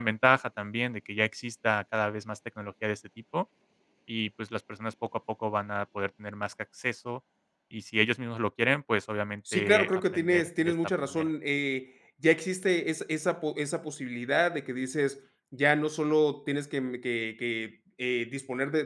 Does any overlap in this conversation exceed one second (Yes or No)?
Yes